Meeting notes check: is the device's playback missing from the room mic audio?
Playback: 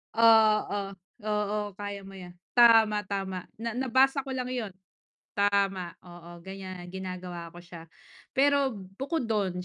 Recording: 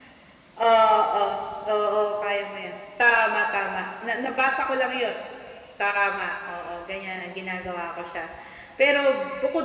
No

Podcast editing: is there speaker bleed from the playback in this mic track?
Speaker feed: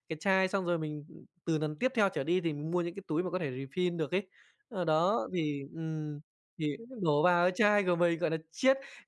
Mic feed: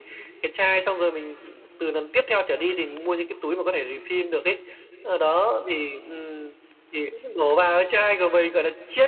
Yes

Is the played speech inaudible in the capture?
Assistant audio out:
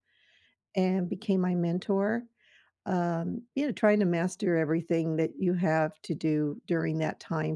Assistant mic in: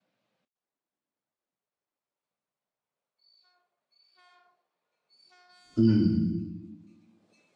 Yes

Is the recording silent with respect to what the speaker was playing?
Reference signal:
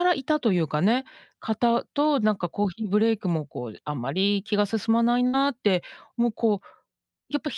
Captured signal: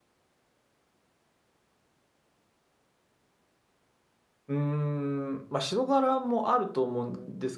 Yes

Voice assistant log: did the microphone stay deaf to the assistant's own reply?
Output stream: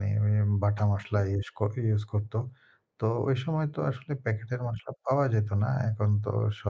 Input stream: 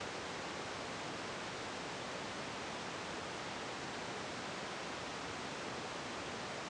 Yes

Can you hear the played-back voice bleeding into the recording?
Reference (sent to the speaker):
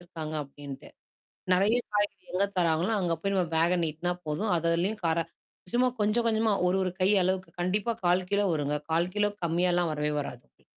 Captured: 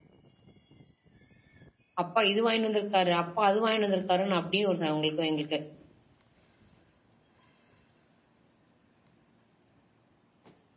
No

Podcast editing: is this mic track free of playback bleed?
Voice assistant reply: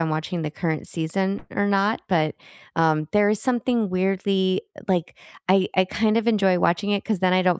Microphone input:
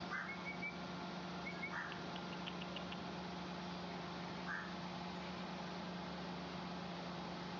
Yes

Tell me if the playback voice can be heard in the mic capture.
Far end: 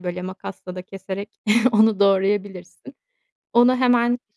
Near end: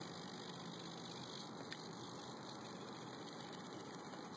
No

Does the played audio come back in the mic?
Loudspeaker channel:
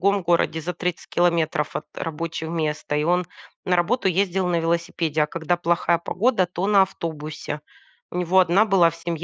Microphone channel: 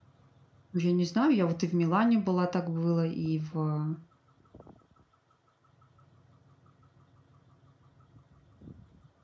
No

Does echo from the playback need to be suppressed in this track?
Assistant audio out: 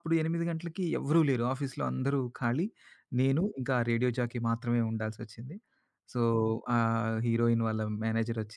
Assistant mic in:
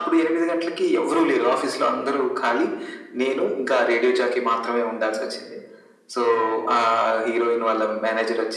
Yes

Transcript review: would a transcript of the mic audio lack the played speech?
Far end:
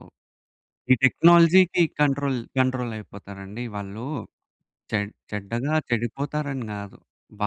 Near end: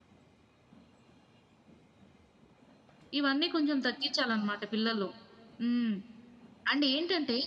Yes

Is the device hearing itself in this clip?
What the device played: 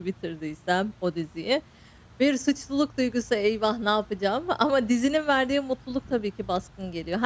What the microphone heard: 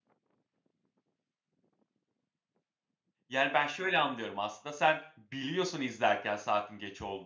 No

